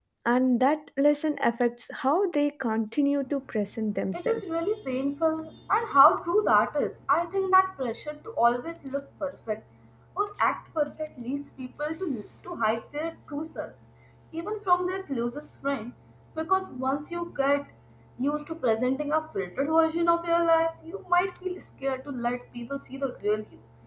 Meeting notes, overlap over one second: none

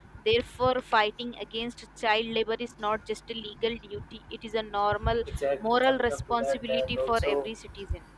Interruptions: present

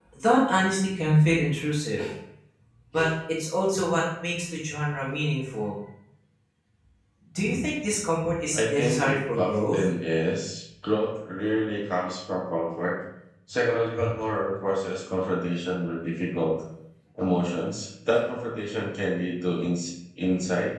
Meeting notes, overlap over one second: present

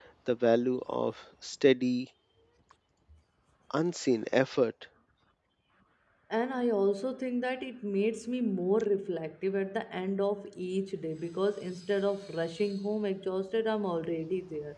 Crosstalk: none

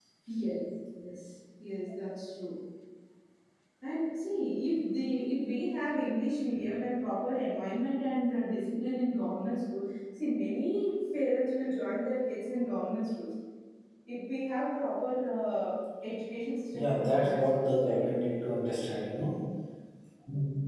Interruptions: present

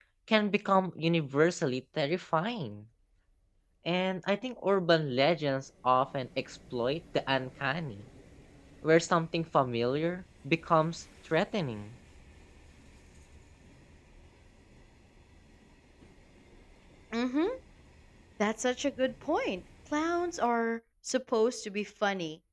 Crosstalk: none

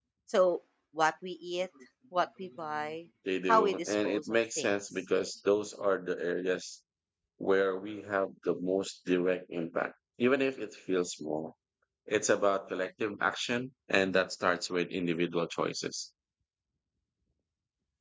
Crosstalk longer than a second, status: present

